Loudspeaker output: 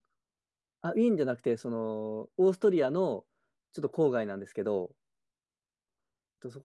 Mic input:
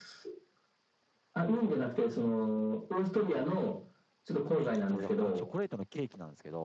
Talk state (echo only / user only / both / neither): both